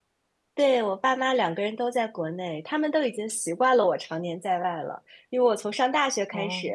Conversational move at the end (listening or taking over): listening